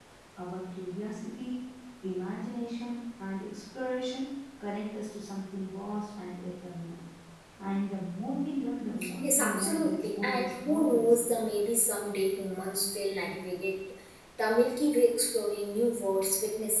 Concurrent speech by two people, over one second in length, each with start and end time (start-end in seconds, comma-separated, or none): 9.2-11.4